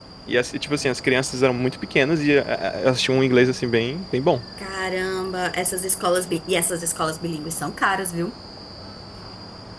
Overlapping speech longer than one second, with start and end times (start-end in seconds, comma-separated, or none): none